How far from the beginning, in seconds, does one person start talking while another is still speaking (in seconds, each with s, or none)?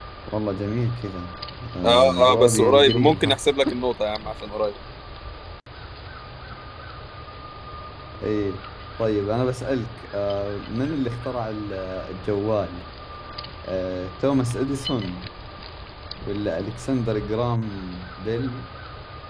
1.8 s